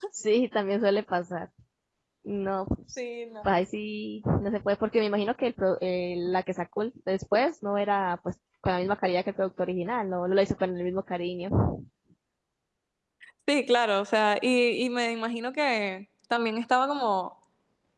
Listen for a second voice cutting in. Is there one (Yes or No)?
No